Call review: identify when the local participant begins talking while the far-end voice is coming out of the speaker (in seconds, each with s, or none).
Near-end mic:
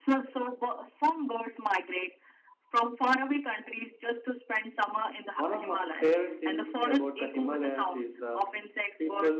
5.3 s